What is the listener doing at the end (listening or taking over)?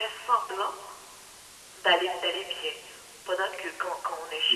listening